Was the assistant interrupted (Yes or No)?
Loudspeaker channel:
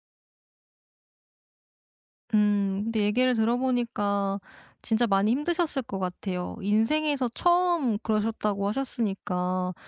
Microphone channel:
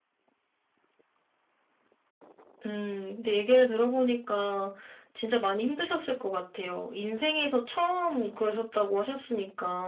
No